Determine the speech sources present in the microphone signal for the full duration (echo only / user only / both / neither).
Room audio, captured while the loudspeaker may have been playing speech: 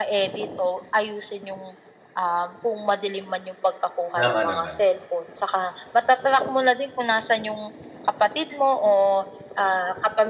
both